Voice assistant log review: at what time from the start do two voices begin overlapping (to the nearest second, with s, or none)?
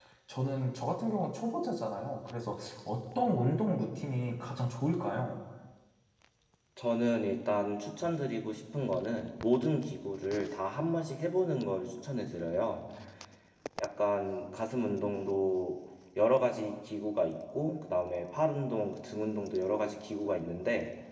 none